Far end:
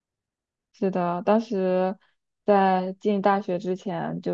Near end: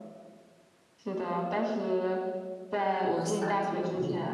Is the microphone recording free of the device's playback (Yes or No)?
No